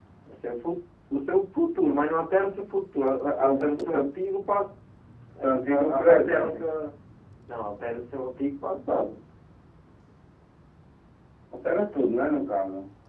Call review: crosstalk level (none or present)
present